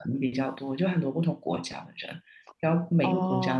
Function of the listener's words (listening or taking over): listening